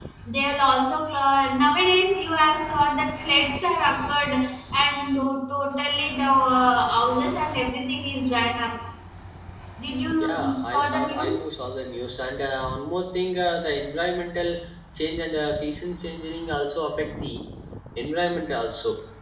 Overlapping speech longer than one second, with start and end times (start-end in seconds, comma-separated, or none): 10.2-11.4